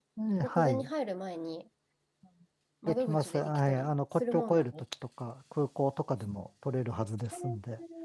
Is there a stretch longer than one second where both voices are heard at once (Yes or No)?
Yes